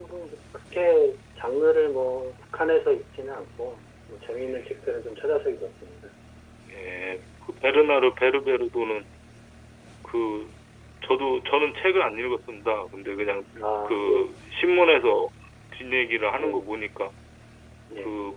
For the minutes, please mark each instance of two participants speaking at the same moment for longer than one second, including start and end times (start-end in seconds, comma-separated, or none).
none